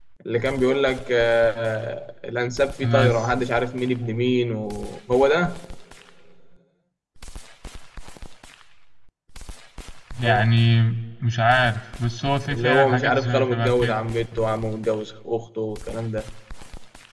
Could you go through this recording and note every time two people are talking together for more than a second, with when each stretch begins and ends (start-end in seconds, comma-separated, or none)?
12.5-14.0